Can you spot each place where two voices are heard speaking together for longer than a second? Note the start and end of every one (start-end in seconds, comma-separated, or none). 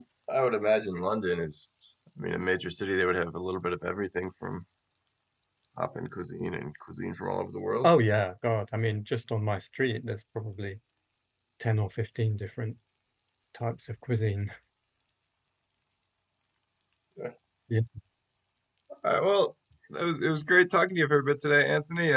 none